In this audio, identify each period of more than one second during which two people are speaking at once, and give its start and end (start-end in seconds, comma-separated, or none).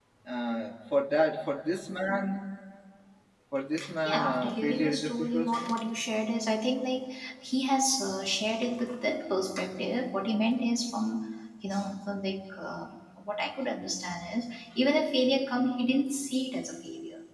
4.0-5.7